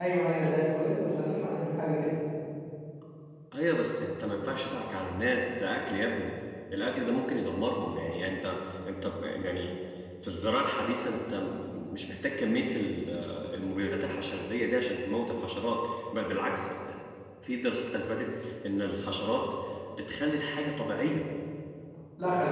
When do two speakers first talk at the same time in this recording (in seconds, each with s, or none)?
none